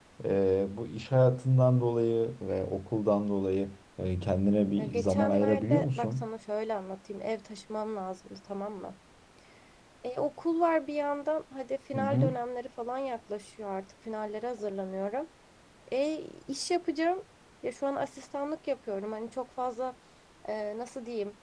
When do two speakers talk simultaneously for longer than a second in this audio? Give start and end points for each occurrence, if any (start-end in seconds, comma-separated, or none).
4.8-6.3